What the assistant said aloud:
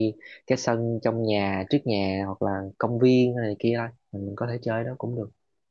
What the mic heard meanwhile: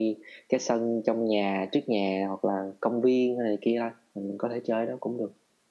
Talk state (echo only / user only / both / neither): echo only